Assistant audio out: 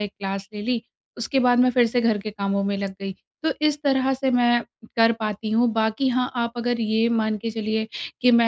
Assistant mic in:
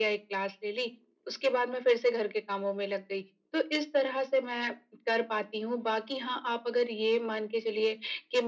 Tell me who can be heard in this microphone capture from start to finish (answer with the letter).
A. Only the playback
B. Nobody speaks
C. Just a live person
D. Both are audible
A